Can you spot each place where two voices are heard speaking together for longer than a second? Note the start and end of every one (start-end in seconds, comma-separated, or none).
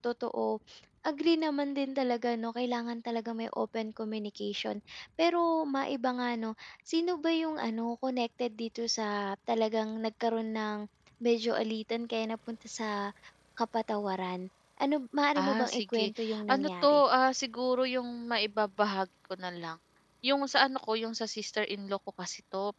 15.4-17.0